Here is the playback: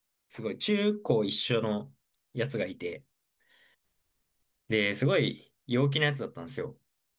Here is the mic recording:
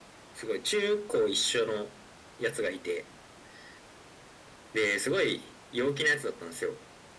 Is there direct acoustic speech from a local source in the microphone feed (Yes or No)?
No